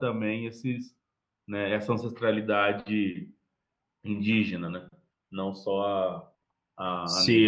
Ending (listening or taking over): taking over